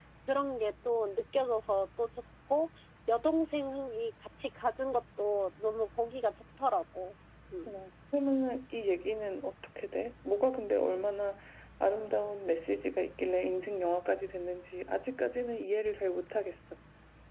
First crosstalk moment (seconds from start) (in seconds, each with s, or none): none